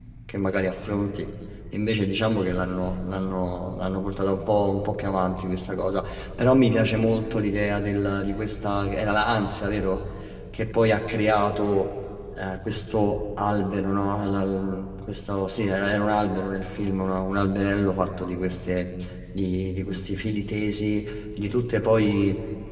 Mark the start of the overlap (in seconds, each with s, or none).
none